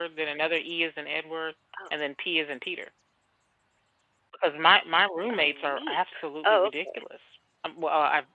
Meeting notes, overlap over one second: present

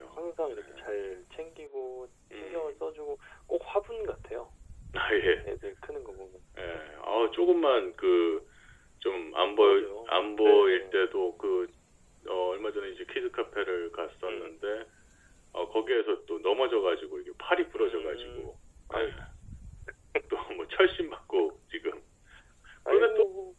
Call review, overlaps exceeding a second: present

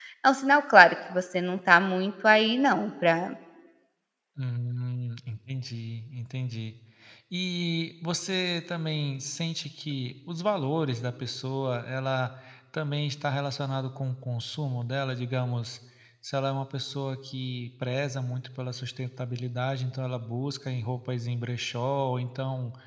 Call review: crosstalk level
none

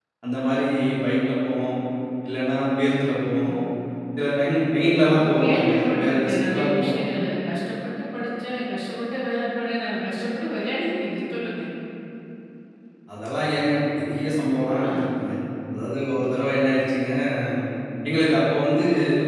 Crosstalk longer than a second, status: present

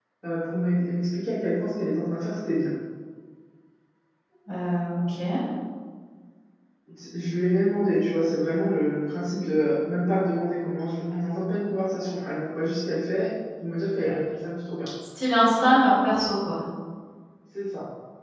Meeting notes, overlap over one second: none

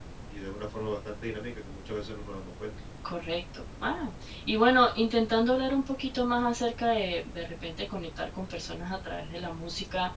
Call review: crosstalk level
none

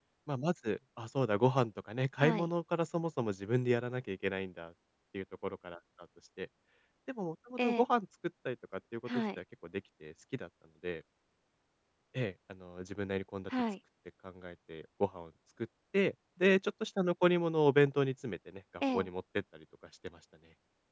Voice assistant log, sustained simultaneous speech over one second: none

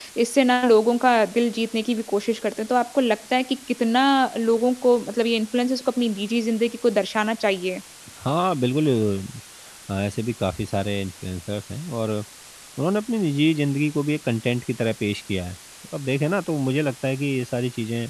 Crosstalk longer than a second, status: none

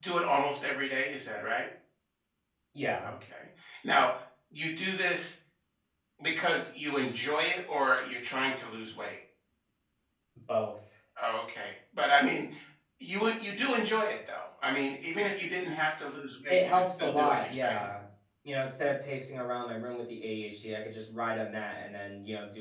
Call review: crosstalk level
present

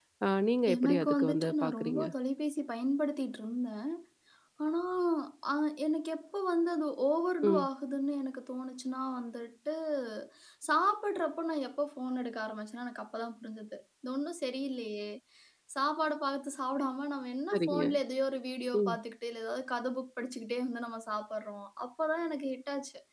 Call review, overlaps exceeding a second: present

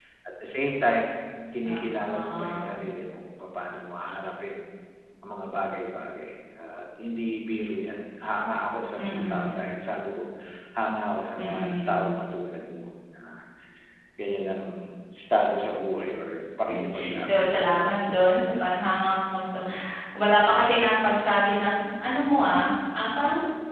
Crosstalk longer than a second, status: present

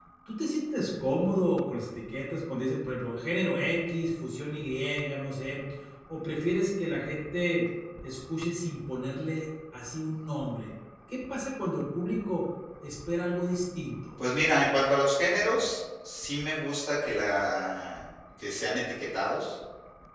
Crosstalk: none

